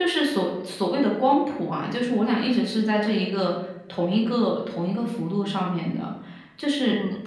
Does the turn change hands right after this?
No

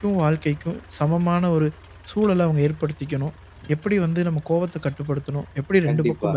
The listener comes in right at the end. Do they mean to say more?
No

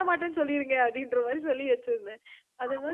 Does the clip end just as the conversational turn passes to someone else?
No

